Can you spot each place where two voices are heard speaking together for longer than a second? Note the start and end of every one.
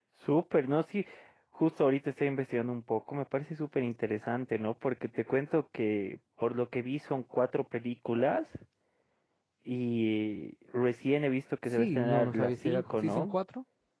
11.8-13.4

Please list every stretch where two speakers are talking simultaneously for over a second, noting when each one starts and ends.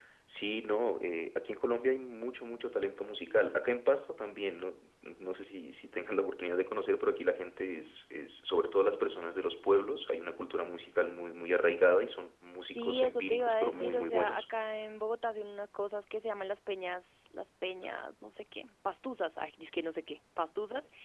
12.7-14.4

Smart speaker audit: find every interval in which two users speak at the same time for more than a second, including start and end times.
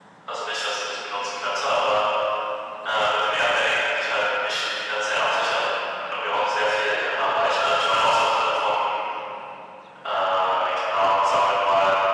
none

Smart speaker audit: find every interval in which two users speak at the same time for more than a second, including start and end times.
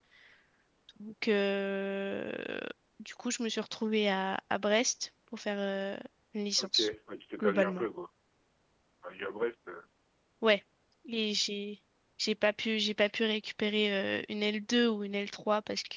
none

